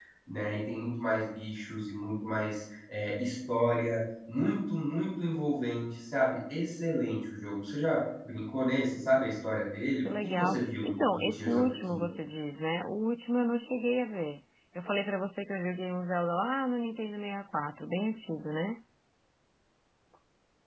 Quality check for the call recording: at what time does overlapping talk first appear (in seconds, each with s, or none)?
10.0 s